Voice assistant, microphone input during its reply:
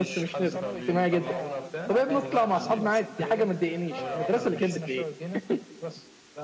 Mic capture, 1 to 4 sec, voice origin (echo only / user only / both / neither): both